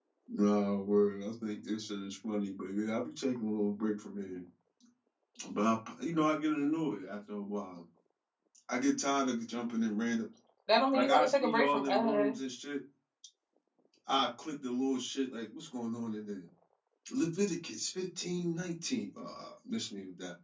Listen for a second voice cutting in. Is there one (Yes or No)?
Yes